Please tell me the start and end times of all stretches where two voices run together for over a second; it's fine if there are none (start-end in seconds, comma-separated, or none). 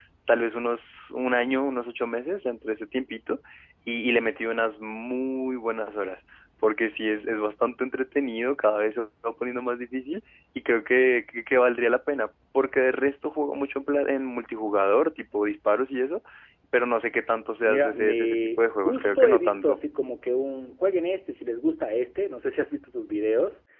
17.6-19.8